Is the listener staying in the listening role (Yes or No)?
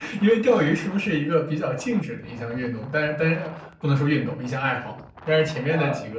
Yes